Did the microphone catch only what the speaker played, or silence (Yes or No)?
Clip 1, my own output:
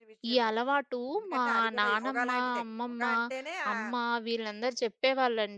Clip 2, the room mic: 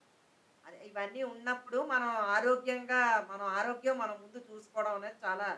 No